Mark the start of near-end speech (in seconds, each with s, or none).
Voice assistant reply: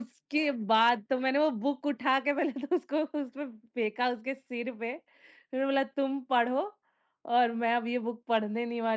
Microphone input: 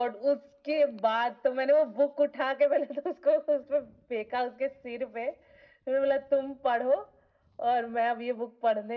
none